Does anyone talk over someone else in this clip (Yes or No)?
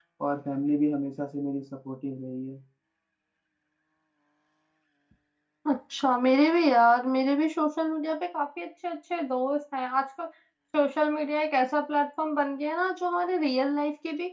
No